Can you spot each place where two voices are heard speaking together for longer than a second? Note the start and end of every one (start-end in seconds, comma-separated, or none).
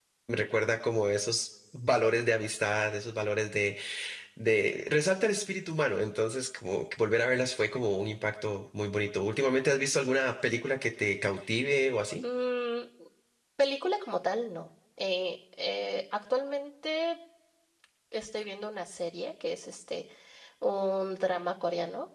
none